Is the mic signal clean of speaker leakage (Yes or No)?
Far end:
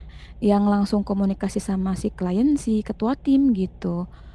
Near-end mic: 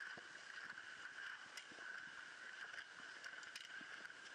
Yes